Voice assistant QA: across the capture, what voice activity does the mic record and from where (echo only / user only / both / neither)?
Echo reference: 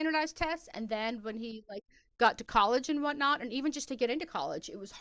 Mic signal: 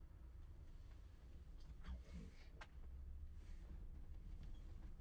neither